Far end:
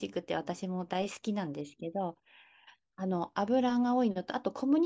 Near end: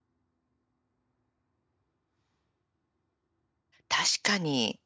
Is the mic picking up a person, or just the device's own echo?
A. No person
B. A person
B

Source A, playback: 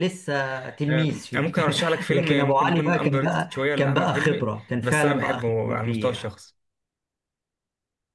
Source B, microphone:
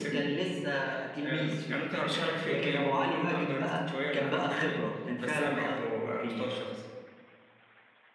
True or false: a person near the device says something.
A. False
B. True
A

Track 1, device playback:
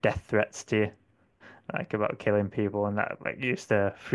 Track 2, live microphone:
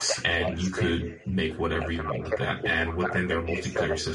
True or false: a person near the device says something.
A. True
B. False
A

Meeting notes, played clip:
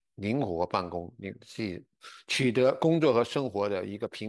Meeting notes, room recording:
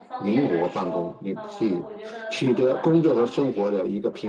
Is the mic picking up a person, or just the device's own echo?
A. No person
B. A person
B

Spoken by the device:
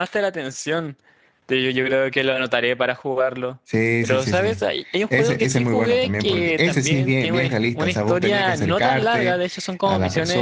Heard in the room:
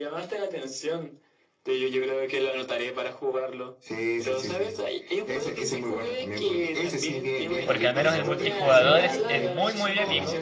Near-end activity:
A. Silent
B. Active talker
B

